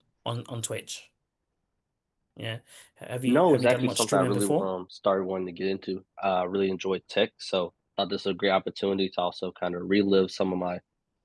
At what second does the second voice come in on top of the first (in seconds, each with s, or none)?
3.2 s